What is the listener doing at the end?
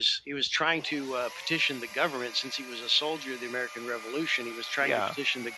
listening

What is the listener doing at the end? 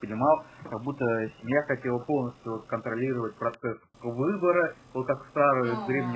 listening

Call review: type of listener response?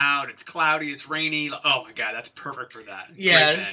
taking over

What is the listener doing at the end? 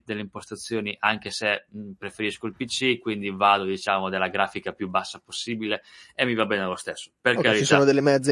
taking over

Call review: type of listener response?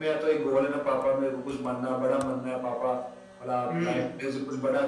listening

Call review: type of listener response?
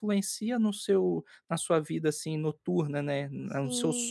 taking over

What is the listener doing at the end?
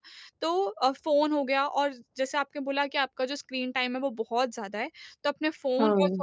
listening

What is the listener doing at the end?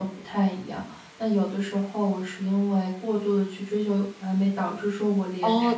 taking over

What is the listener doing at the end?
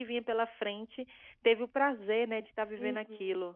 taking over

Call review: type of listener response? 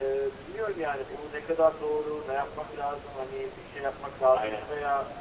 listening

